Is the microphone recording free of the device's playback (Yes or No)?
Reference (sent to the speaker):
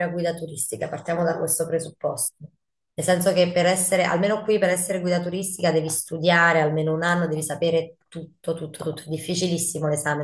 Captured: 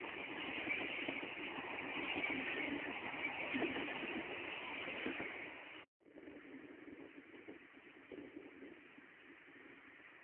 Yes